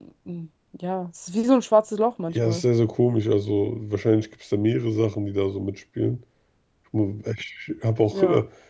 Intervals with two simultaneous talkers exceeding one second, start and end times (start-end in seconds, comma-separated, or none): none